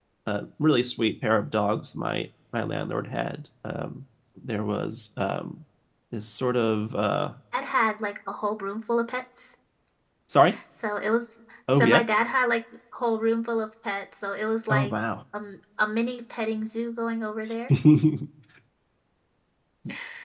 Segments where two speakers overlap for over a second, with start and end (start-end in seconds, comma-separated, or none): none